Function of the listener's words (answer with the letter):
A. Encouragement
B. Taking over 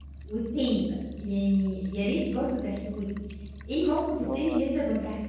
A